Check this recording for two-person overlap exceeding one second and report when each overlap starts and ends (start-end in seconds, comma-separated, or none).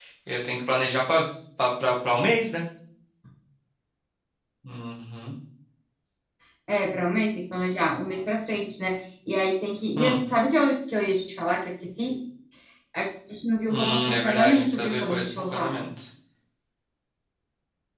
13.7-15.7